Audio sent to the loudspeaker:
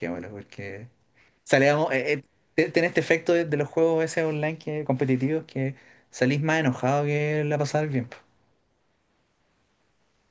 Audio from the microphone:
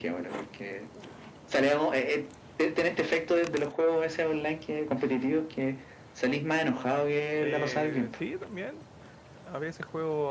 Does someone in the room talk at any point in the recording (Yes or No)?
Yes